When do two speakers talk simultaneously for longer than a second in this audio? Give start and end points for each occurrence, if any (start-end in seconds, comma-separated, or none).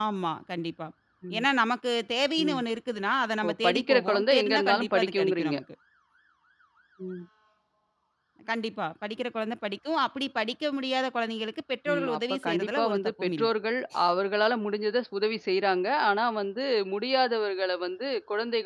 3.5-5.6, 11.9-13.5